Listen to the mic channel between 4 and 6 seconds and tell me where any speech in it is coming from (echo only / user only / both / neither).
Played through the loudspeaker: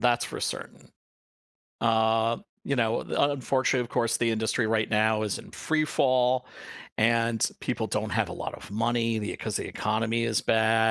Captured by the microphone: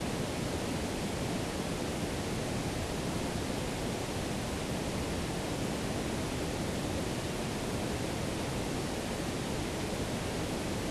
neither